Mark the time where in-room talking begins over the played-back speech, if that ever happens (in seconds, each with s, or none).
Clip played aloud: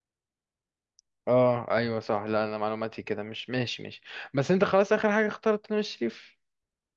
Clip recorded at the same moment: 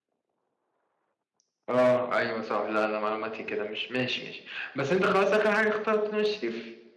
none